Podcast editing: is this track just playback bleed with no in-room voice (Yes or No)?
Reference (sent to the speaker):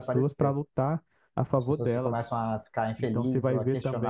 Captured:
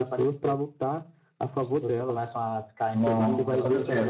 No